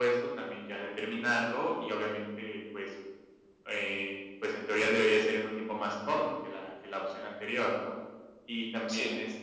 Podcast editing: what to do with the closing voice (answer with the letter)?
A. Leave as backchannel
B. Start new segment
A